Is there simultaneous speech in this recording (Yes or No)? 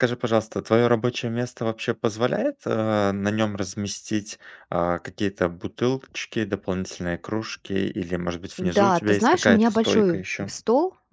Yes